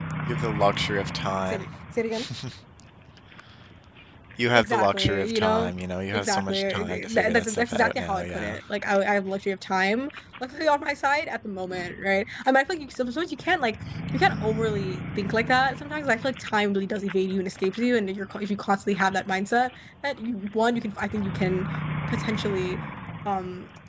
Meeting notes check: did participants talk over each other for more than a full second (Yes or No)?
Yes